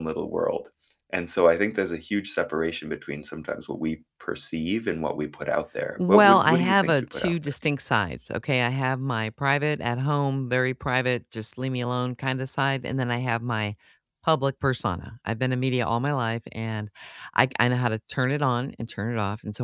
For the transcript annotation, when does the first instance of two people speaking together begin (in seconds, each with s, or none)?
6.0 s